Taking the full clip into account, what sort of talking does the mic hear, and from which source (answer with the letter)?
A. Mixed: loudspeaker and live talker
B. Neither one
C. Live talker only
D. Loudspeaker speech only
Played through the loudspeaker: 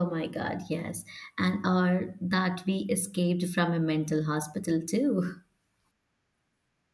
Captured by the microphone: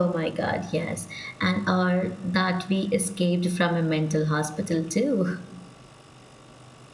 D